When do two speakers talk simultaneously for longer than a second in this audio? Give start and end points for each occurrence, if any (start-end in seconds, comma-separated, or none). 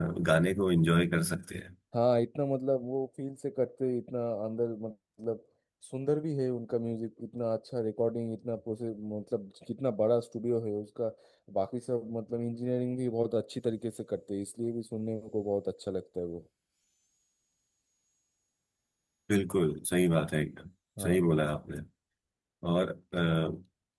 none